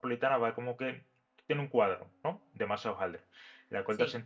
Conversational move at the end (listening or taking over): listening